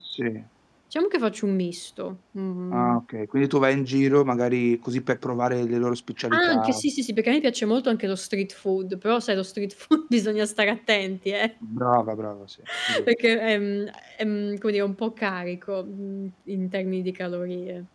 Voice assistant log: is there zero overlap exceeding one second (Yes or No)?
Yes